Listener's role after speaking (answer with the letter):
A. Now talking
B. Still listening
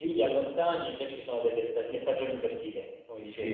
A